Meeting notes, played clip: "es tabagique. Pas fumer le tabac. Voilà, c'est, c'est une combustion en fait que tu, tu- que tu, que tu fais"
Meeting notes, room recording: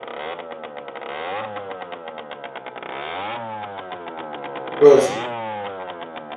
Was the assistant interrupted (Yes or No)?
Yes